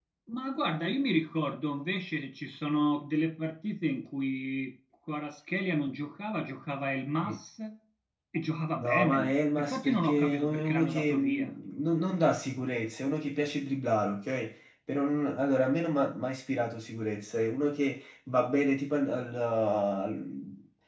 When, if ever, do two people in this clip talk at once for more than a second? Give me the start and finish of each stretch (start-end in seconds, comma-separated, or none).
8.8-11.5